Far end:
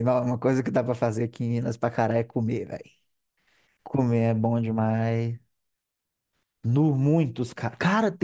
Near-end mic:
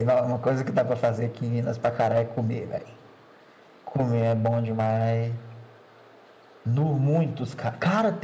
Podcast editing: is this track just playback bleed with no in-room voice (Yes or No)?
Yes